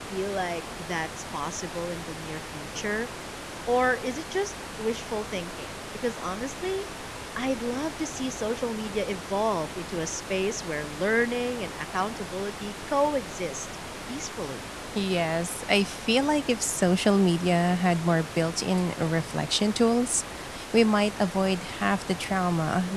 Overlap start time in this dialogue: none

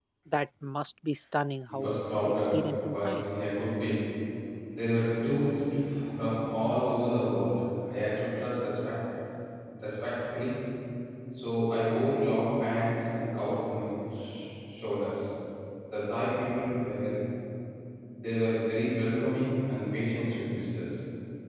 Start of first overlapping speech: 2 s

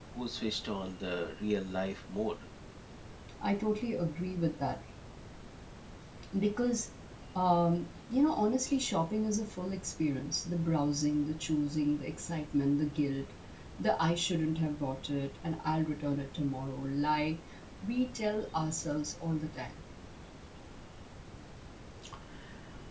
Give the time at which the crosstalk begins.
none

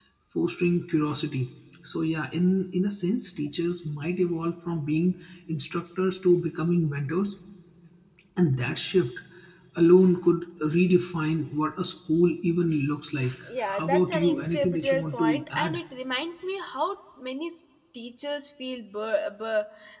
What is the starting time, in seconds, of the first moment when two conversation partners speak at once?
13 s

